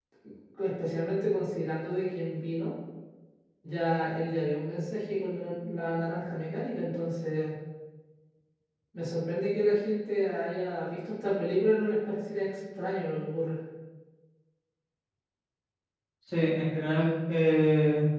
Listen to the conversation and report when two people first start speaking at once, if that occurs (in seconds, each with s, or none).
none